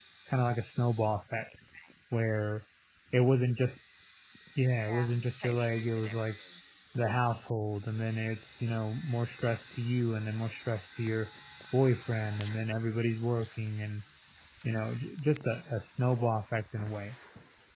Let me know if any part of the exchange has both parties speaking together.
Yes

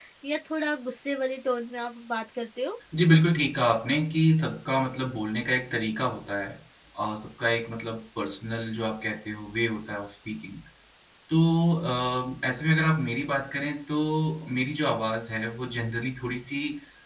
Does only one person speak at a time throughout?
Yes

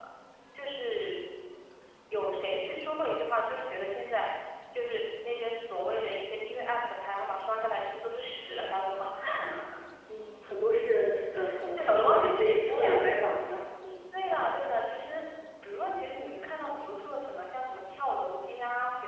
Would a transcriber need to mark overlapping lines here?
Yes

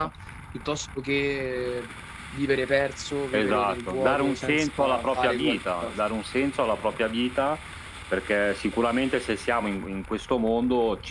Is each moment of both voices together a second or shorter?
No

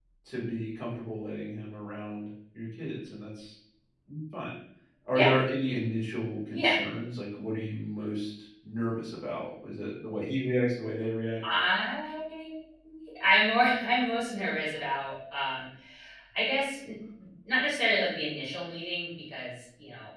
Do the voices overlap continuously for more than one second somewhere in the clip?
No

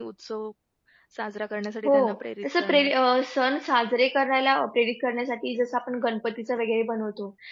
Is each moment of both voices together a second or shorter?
Yes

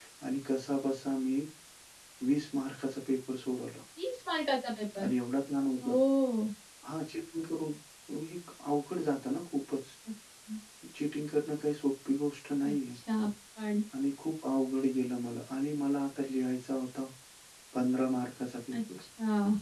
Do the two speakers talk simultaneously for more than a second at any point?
No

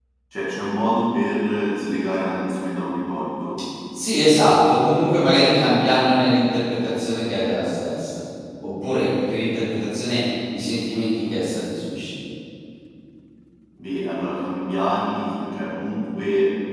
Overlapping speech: No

